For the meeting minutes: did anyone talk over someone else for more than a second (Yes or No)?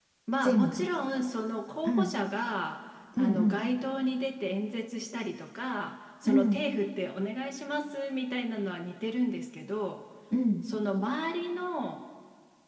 No